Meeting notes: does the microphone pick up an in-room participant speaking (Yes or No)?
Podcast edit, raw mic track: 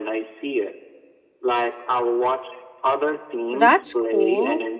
Yes